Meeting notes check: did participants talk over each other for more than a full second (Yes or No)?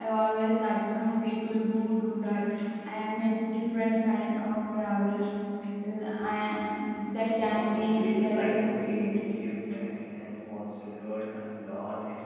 Yes